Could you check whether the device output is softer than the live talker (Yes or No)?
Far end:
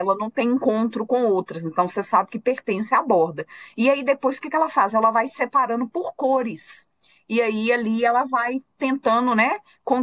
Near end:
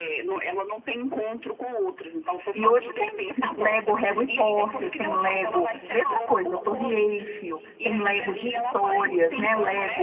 Yes